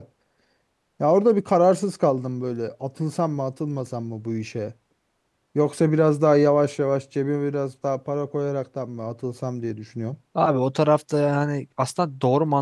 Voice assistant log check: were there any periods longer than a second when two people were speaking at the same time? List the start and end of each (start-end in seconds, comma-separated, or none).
none